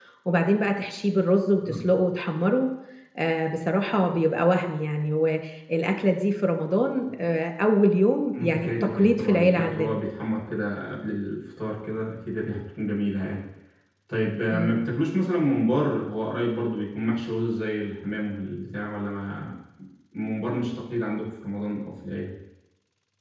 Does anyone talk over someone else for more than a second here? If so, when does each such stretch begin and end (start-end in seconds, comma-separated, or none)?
8.3-9.9